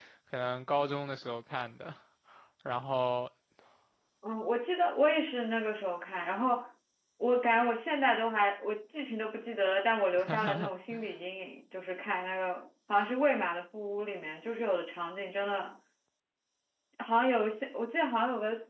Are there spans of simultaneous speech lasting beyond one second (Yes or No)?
No